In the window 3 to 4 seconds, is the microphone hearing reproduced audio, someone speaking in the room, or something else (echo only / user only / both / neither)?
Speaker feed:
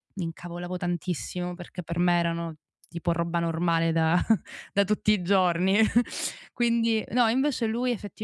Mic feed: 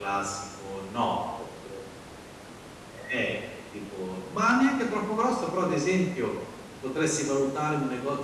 user only